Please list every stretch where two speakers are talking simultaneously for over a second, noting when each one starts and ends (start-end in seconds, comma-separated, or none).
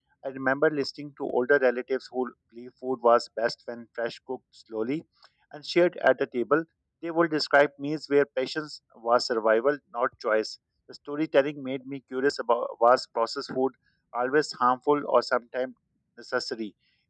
none